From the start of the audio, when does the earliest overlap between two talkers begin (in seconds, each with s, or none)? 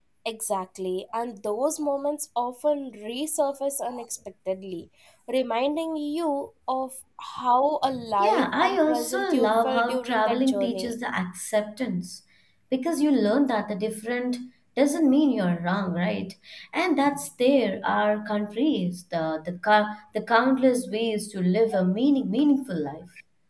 7.9 s